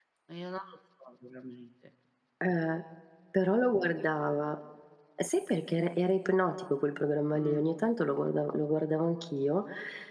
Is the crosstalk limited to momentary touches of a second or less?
Yes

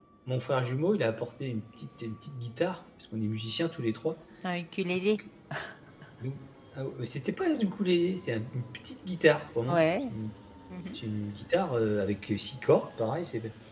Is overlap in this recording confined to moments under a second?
Yes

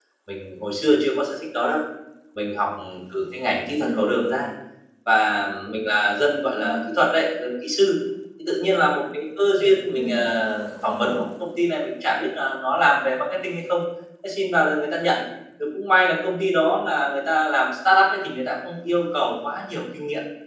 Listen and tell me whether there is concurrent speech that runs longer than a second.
Yes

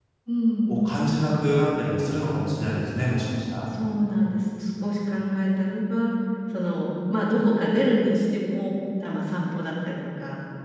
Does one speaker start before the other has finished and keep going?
No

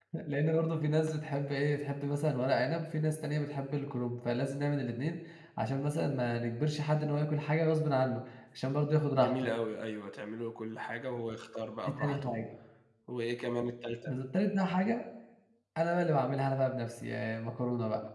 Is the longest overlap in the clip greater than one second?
No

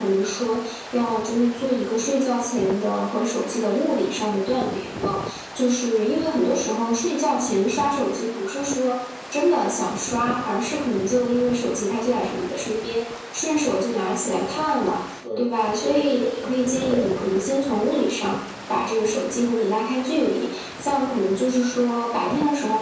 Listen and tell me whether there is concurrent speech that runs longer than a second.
Yes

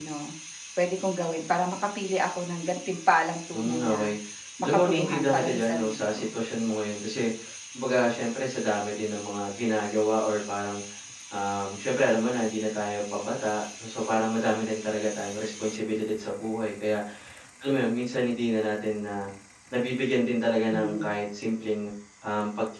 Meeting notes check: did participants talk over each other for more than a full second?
Yes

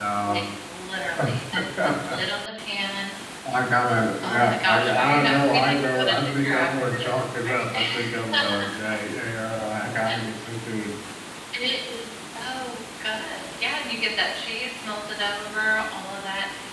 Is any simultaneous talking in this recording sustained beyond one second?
Yes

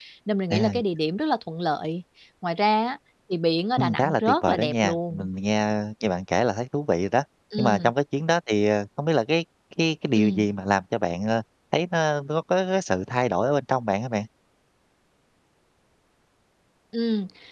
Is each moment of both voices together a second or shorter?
No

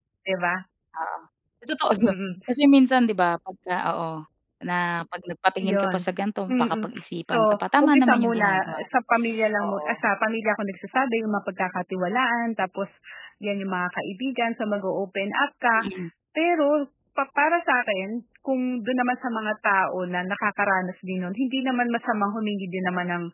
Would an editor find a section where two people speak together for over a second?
Yes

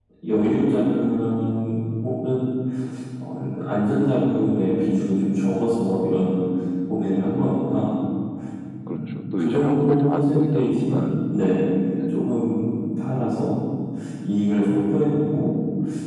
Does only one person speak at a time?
No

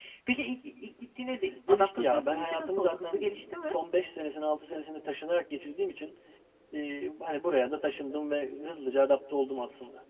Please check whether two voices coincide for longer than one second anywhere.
Yes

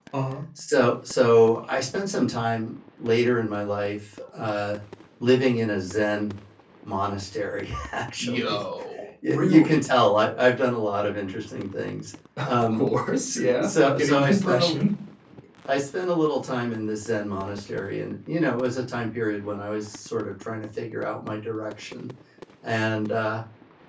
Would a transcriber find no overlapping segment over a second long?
No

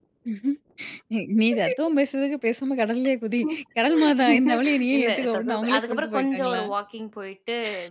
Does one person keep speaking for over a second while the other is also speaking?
Yes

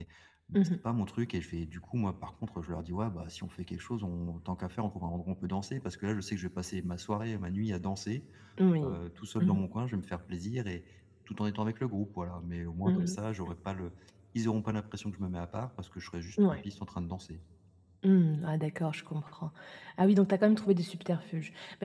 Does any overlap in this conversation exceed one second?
No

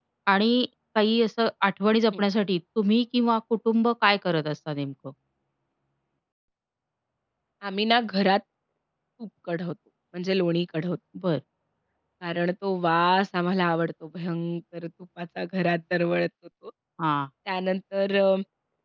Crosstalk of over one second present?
No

